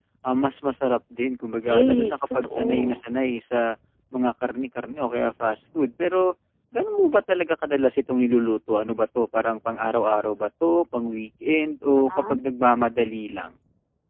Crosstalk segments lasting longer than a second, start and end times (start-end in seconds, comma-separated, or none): 1.7-3.0